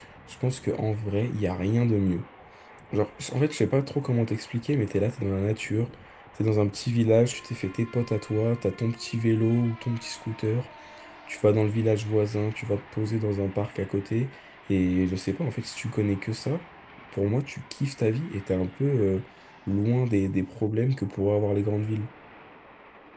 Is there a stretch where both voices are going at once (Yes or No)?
No